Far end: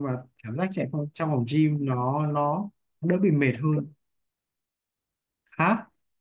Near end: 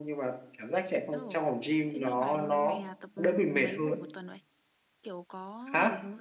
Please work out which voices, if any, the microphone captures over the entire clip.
both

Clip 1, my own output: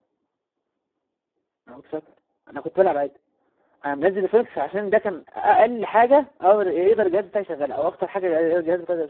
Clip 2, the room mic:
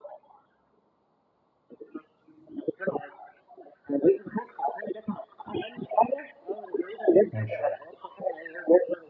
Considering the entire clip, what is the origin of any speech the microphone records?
both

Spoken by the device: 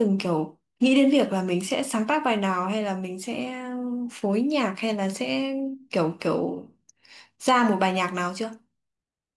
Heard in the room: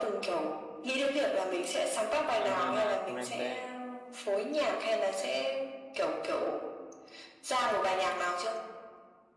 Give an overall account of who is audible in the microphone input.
both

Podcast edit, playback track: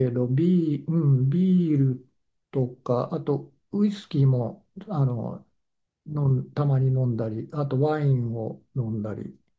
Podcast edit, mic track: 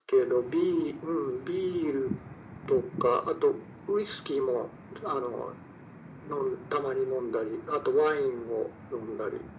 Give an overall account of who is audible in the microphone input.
echo only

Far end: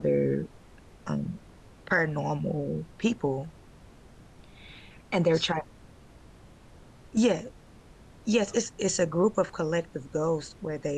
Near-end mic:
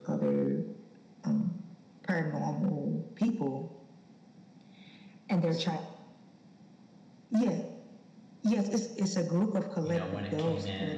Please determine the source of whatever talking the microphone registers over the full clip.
both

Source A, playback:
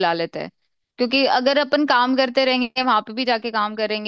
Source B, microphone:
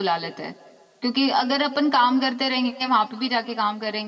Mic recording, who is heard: echo only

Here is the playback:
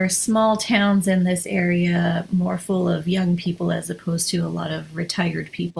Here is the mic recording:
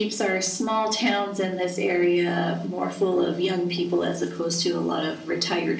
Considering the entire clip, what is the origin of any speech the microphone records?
echo only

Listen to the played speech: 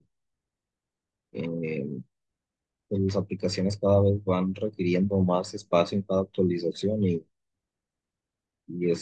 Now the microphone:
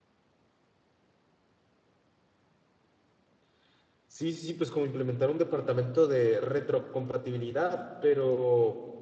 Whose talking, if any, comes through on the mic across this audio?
user only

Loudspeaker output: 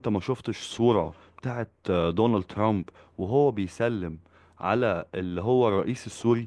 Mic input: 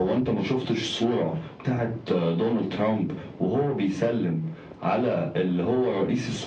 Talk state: echo only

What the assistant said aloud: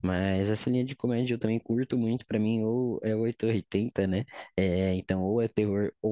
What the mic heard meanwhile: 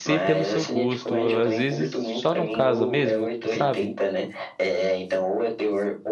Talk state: both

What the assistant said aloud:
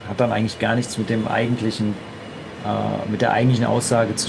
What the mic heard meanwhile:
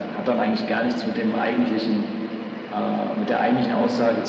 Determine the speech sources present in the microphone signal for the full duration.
echo only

